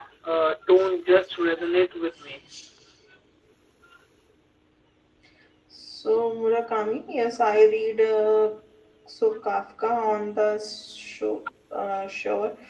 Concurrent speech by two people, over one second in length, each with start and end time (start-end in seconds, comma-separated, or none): none